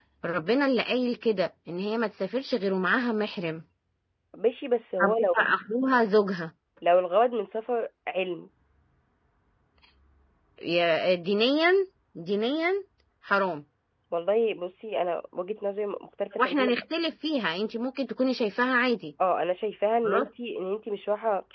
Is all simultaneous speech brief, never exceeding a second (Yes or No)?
Yes